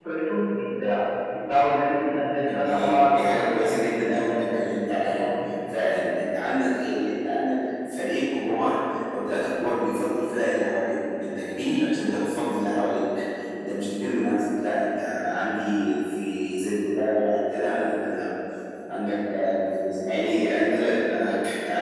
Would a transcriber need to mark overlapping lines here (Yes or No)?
Yes